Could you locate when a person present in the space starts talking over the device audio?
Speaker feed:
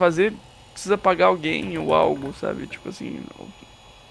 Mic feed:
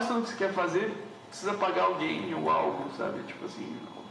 none

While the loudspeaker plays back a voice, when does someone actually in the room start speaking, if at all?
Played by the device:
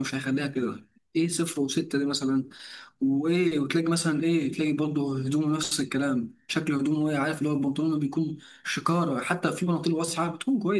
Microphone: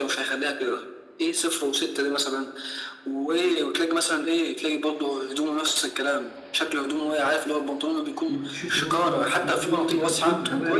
8.3 s

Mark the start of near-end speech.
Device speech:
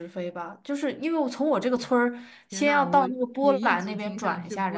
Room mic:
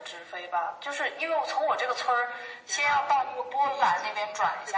none

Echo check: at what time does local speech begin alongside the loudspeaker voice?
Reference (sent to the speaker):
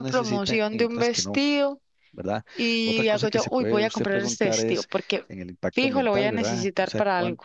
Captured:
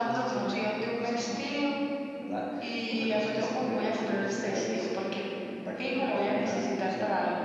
none

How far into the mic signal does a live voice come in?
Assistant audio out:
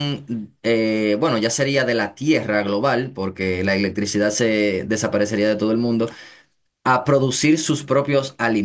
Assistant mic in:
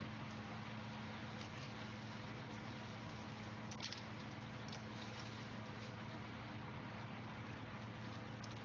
none

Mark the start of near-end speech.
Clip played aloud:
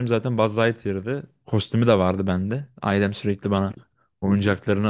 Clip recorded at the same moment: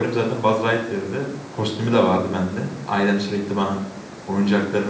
none

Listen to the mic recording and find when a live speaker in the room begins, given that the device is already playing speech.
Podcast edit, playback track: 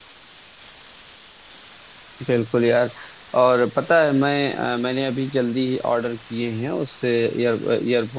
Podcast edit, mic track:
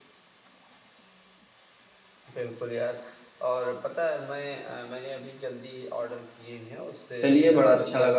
7.2 s

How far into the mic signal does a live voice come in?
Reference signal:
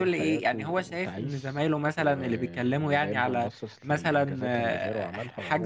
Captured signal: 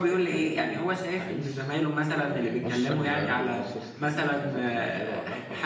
2.6 s

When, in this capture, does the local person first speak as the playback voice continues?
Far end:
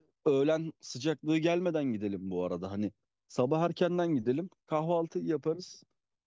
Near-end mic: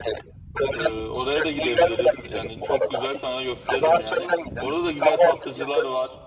0.7 s

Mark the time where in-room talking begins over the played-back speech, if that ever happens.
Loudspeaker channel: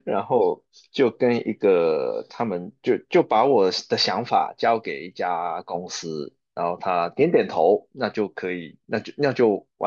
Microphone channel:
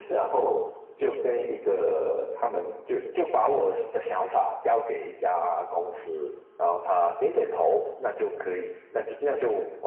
none

